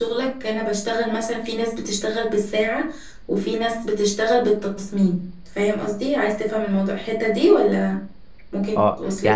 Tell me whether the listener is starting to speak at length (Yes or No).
Yes